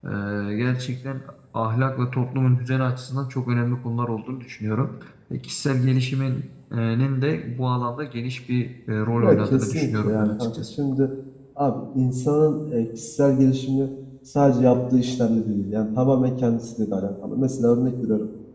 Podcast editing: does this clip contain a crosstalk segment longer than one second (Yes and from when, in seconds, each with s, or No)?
Yes, from 9.2 s